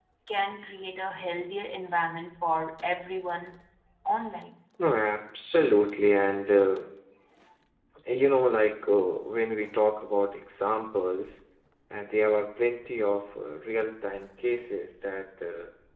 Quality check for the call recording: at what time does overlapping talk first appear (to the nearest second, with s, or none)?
none